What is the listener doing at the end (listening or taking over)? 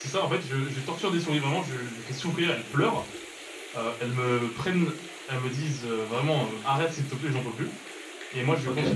listening